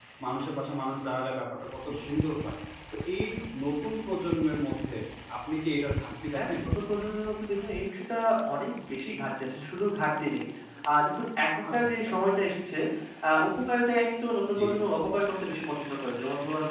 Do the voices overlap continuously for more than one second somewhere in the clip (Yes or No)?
No